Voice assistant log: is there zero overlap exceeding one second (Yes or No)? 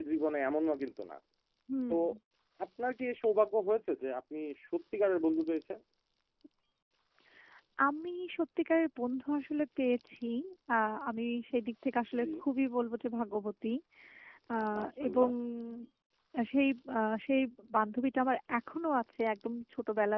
Yes